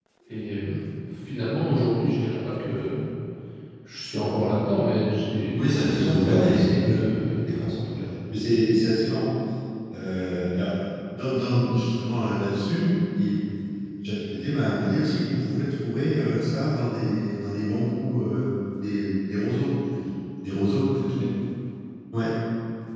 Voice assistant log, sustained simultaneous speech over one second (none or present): present